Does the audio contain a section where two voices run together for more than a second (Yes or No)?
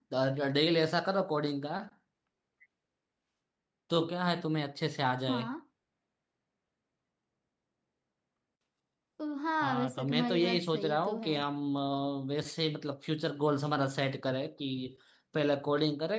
Yes